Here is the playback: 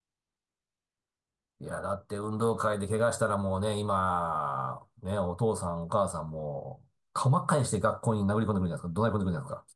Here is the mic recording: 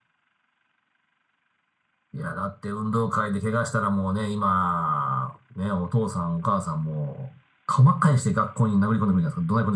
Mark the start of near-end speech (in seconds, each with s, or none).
none